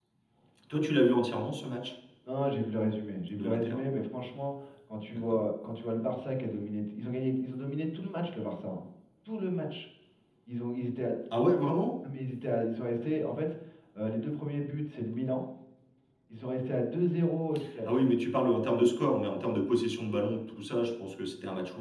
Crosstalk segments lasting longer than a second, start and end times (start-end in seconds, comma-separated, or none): none